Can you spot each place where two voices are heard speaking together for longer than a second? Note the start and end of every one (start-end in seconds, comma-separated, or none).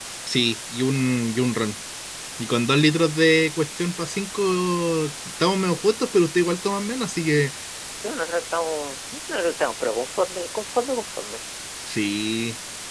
none